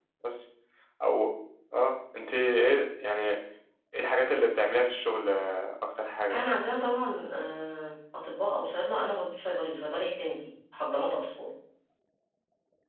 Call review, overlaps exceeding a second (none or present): none